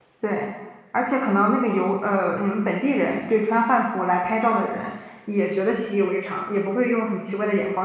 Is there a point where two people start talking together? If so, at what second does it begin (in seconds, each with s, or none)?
none